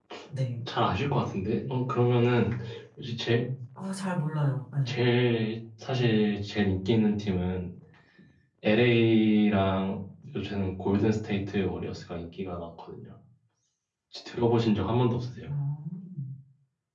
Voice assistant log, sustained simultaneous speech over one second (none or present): none